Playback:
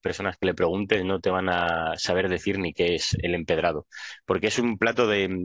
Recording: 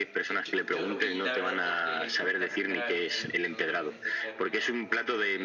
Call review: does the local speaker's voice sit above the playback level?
No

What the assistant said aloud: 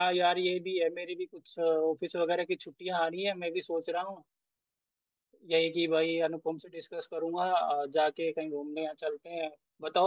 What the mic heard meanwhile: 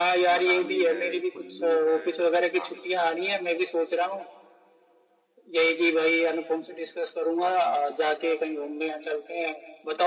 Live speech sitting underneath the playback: Yes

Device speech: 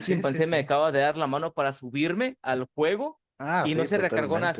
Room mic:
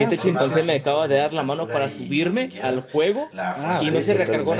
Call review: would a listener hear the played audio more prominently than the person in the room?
Yes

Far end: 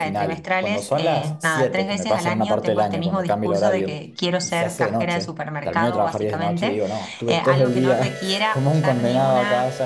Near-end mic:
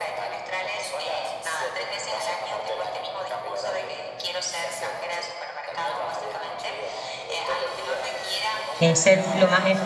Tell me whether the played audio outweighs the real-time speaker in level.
No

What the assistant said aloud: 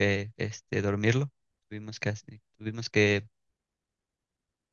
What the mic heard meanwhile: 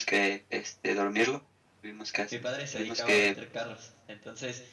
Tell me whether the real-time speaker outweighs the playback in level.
No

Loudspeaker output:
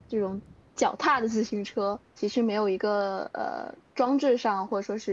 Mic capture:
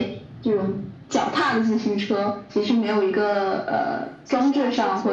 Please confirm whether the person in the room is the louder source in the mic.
No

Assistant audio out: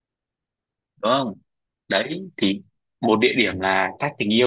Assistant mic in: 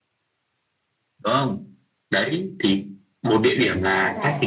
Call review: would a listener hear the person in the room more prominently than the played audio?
No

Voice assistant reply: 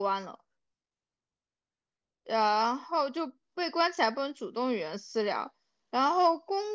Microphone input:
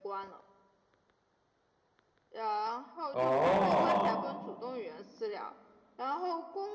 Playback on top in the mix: No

